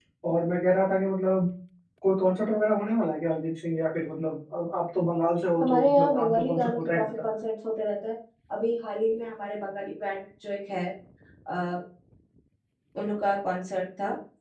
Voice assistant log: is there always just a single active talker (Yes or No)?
No